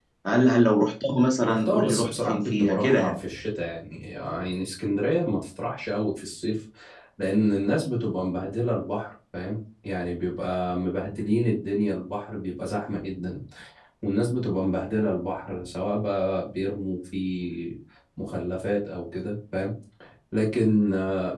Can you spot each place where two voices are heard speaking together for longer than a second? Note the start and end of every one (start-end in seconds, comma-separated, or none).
1.4-3.1